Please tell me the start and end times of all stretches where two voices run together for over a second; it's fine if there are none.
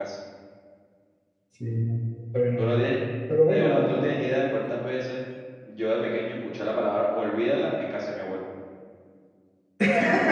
none

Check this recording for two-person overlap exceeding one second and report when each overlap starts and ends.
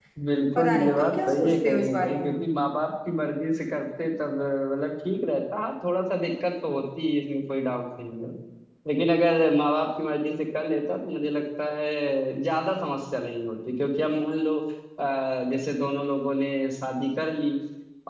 0.6-2.3

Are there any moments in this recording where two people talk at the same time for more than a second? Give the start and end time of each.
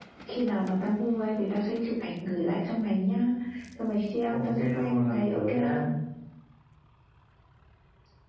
4.3-5.8

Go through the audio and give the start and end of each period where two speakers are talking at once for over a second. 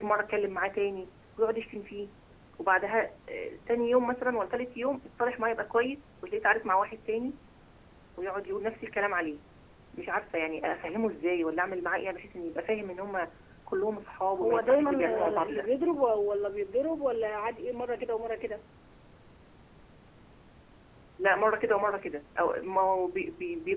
14.4-15.7

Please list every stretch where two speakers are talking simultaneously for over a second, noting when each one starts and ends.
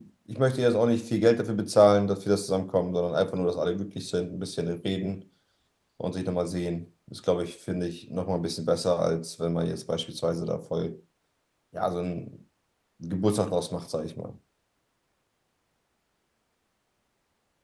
none

